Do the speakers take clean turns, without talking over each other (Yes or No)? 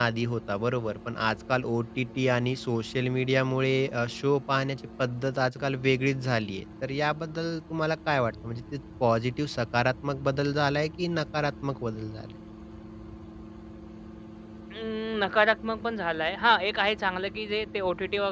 Yes